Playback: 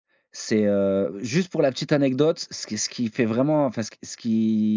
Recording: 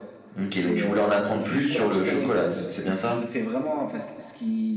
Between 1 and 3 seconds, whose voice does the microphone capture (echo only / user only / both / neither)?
both